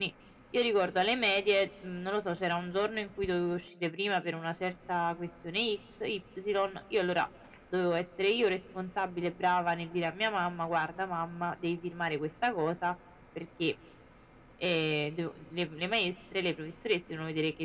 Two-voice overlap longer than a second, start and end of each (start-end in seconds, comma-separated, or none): none